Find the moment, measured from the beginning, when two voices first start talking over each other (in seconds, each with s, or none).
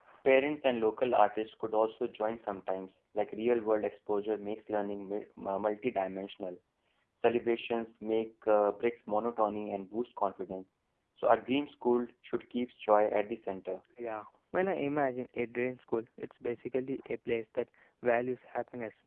none